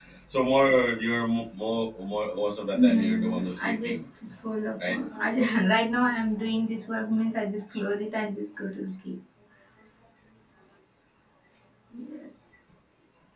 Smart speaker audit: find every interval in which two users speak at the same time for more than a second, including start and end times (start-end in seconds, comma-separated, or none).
2.7-4.0